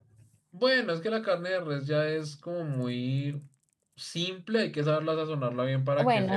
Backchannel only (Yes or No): No